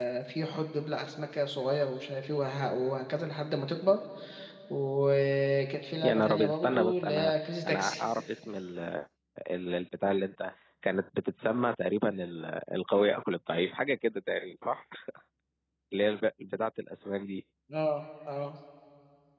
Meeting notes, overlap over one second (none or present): present